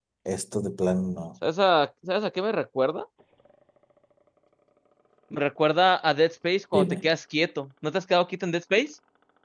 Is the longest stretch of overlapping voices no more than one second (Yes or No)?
Yes